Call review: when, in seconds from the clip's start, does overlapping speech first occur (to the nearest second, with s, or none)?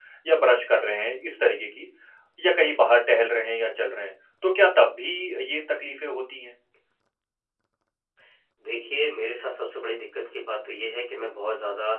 none